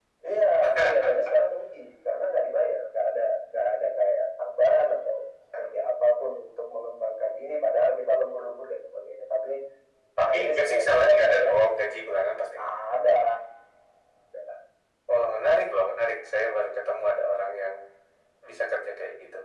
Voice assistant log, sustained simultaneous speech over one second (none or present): present